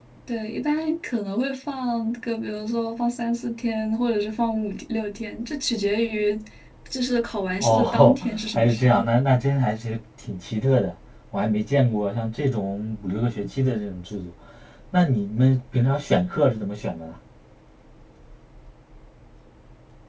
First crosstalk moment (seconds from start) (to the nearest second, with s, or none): 8 s